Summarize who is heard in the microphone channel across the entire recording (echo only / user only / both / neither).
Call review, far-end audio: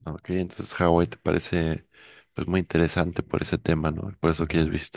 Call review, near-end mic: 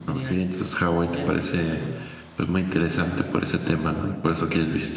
both